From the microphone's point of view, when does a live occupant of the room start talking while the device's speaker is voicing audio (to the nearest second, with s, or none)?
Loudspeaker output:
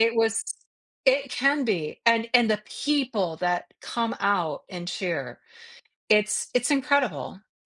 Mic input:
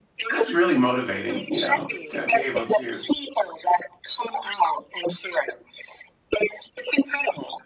0 s